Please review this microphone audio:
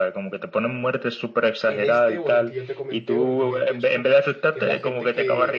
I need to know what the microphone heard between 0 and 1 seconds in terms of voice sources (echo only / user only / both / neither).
echo only